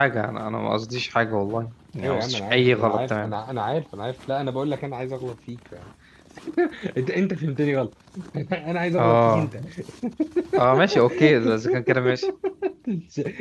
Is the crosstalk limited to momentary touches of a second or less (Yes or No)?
No